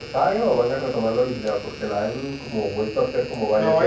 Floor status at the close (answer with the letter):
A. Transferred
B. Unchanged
A